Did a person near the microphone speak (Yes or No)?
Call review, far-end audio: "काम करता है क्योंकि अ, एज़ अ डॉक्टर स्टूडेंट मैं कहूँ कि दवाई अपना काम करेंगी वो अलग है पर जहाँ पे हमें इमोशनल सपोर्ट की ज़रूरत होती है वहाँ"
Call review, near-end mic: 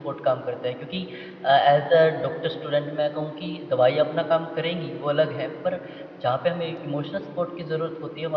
No